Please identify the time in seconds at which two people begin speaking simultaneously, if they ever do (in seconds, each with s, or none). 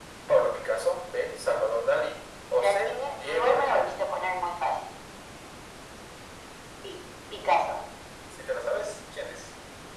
2.6 s